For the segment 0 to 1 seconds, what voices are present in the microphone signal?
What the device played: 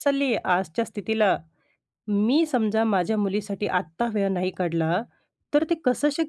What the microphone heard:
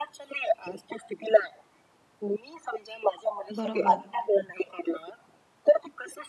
echo only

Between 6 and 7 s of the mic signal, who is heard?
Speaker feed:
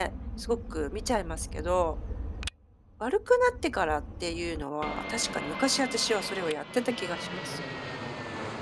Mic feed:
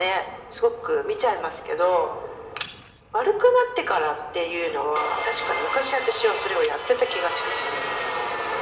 echo only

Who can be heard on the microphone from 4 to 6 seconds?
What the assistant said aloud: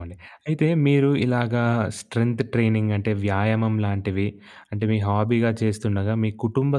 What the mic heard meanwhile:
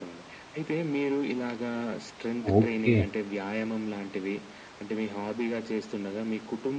echo only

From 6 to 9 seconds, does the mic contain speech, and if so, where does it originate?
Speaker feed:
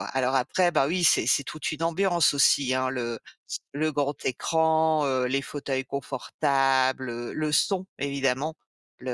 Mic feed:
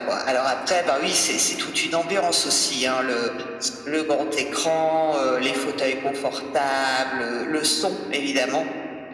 echo only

